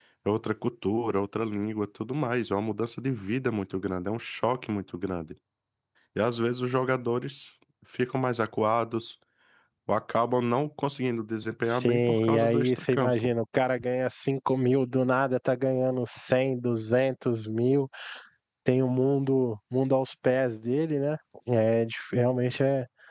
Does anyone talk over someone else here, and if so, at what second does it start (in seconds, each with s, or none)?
11.6 s